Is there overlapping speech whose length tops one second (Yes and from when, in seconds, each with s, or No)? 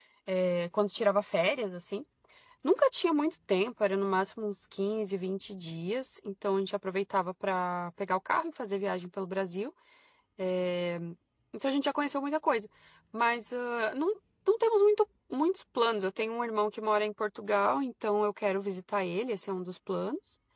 No